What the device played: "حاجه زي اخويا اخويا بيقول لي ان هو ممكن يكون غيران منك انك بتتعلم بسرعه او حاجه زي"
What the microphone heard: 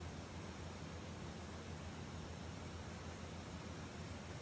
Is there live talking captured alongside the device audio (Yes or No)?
No